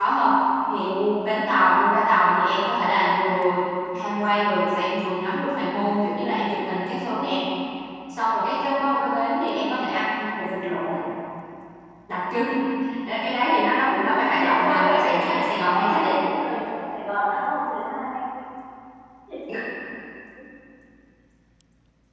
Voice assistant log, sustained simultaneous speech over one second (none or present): present